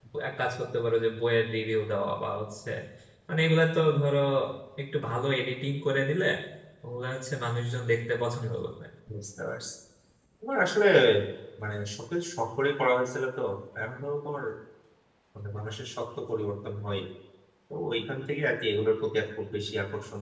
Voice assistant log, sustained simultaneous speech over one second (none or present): none